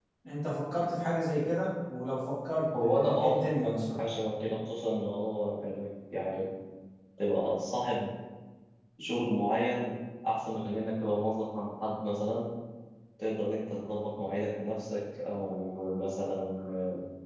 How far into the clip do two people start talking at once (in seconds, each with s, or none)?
2.7 s